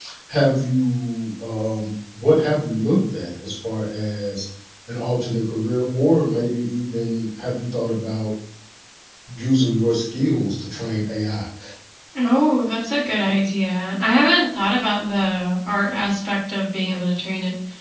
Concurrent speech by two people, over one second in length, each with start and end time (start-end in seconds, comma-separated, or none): none